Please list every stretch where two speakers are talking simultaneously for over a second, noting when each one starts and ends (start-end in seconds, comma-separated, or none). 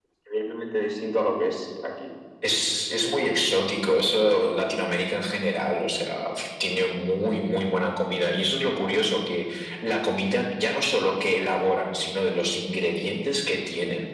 none